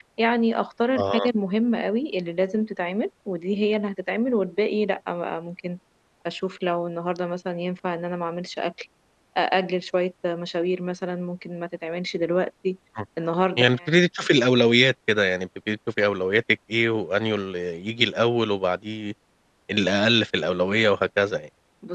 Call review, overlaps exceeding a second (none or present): none